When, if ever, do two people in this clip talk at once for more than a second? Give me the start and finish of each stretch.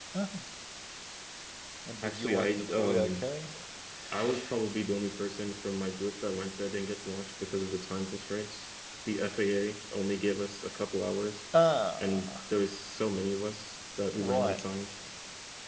2.0-3.2

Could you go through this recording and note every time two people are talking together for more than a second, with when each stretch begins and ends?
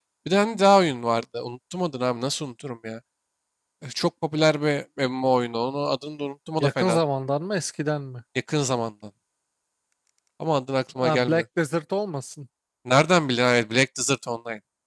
none

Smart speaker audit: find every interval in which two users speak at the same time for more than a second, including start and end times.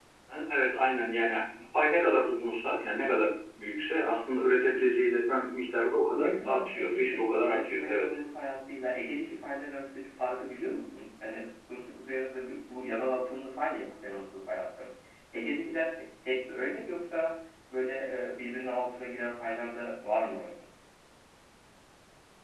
6.1-8.1

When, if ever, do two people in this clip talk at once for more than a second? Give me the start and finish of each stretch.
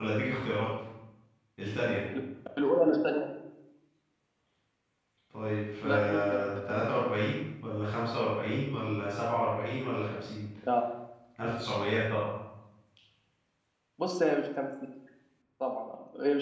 5.8-7.1

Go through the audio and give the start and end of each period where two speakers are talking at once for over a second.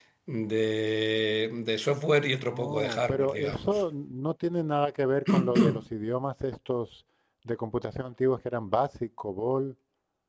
2.5-3.8

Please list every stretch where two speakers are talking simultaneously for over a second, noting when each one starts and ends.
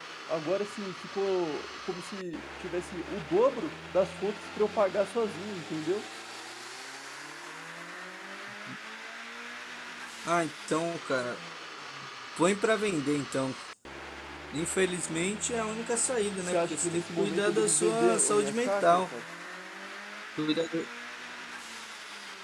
16.4-19.0

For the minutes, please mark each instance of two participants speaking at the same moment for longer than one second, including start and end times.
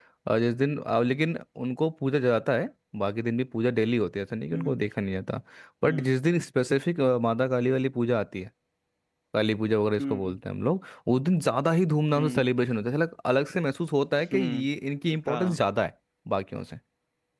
none

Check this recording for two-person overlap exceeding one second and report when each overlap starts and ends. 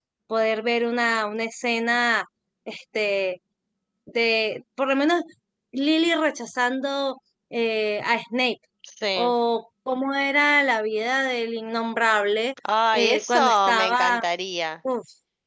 12.9-14.2

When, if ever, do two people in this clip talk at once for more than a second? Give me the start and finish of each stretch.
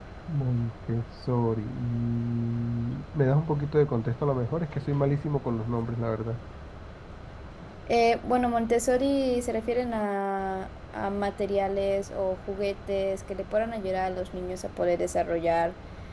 none

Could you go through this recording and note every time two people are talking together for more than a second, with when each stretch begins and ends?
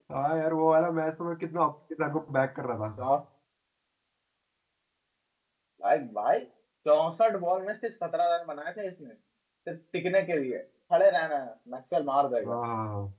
none

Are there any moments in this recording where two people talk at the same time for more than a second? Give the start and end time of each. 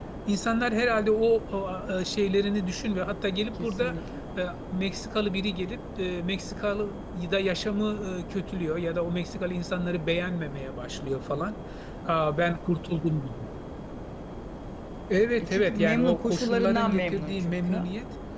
15.4-17.8

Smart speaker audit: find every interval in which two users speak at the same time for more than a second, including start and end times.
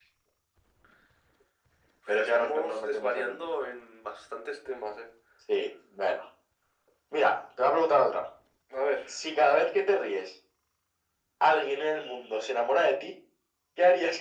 2.2-3.5

